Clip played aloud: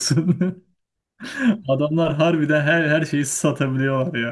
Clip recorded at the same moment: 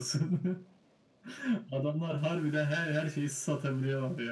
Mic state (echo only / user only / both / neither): echo only